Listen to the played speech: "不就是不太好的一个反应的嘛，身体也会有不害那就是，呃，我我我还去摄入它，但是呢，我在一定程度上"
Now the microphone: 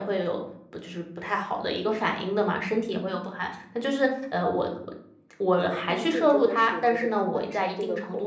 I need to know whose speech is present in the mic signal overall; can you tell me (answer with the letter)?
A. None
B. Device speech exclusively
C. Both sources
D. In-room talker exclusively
C